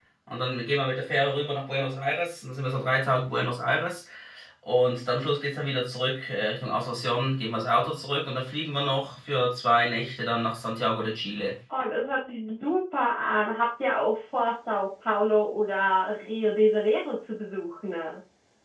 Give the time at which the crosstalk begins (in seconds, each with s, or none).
none